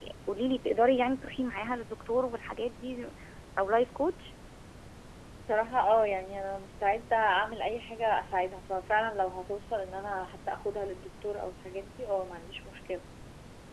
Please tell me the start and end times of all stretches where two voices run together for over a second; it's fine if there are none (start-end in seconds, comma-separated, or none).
none